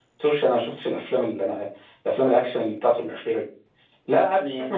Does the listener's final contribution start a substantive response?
No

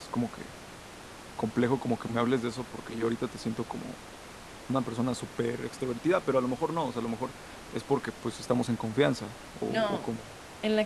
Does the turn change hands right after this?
Yes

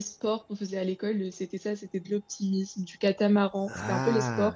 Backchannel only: Yes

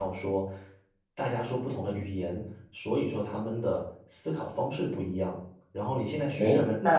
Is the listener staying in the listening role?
No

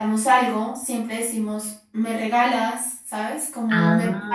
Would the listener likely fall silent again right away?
Yes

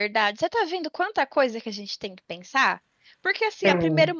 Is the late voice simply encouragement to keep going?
Yes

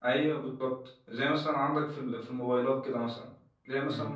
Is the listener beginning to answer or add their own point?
No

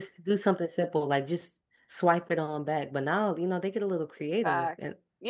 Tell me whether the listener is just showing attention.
No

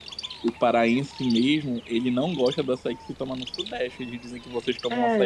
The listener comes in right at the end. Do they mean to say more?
Yes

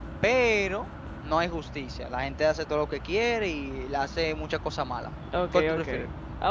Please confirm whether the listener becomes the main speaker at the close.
Yes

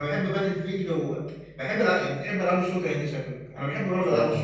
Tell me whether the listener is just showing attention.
Yes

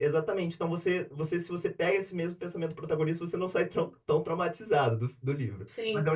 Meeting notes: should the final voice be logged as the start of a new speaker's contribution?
Yes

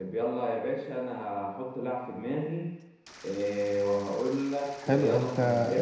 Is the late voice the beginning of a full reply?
Yes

